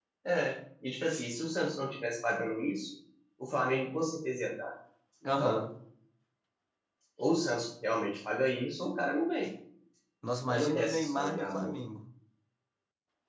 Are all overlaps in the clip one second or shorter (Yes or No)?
No